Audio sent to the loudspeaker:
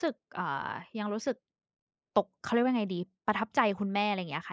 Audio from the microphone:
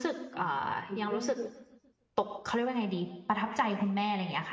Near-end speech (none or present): present